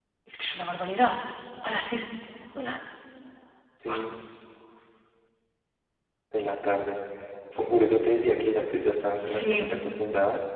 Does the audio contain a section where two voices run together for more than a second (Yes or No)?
No